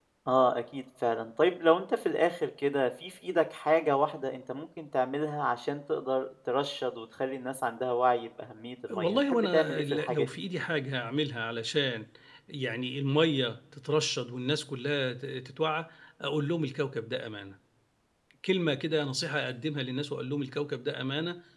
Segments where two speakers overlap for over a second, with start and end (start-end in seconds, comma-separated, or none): 8.9-10.3